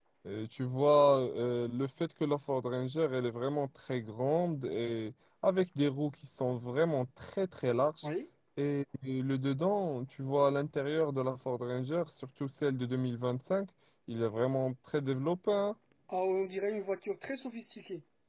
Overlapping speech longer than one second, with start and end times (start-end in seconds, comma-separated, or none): none